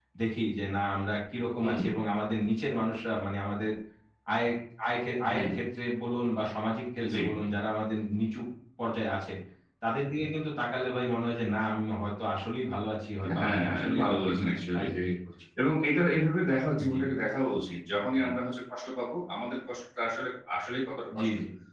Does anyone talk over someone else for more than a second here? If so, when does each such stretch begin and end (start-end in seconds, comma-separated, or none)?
13.4-15.0